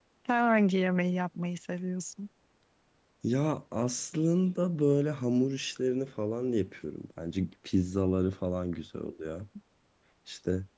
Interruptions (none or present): none